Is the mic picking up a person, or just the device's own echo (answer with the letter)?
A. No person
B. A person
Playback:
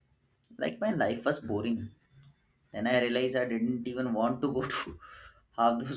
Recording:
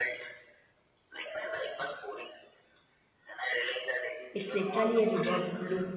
B